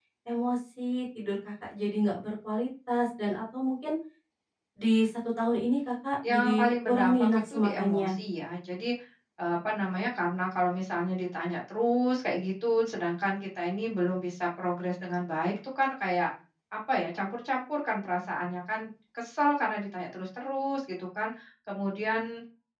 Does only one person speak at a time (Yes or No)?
No